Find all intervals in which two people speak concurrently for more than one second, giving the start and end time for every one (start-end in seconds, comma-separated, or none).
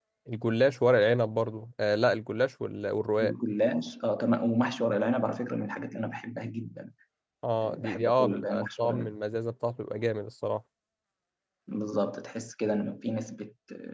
7.7-9.1